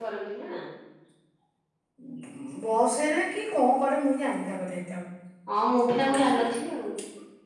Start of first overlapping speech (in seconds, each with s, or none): none